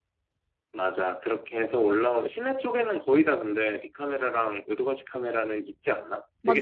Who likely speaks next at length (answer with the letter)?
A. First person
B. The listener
B